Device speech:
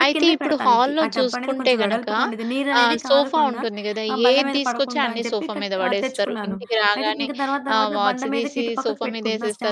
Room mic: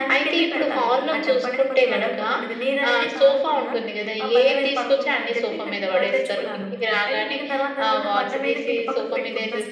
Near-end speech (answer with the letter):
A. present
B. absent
B